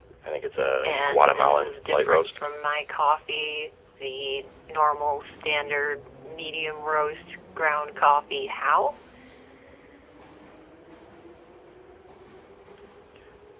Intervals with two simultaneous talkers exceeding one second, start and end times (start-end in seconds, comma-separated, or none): 0.8-2.4